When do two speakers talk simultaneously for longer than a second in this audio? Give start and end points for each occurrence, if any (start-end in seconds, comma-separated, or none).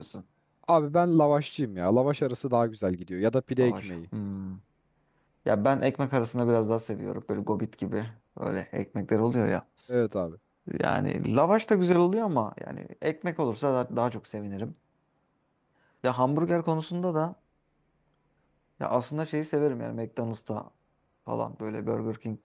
none